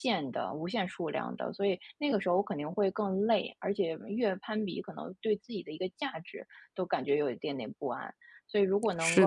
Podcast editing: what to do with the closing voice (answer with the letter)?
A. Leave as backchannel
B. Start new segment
A